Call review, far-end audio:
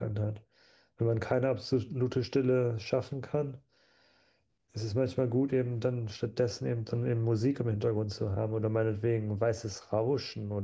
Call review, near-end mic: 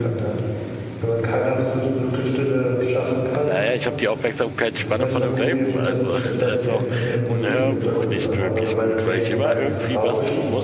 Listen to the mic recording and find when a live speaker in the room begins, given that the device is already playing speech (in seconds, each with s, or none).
3.4 s